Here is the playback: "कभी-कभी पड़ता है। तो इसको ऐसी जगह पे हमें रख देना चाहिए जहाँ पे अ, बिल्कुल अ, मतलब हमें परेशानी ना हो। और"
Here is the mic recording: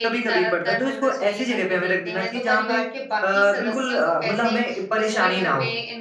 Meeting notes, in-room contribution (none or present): present